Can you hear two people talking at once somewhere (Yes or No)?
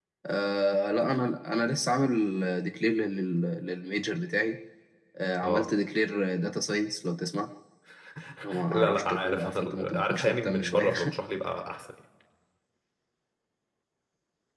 Yes